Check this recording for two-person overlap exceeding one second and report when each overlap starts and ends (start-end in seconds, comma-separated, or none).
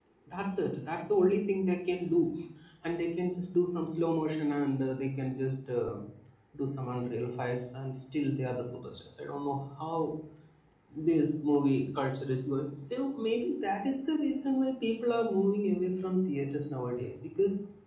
none